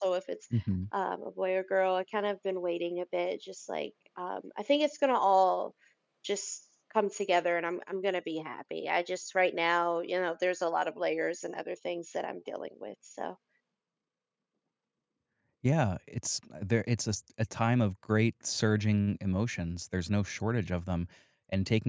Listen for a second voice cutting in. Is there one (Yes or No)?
No